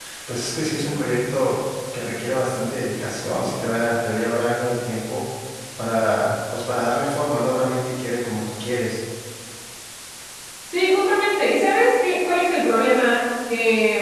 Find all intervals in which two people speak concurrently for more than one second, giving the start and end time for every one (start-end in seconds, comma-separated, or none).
none